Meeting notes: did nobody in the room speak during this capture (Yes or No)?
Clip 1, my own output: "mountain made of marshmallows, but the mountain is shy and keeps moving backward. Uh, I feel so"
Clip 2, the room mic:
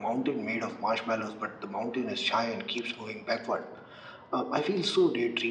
Yes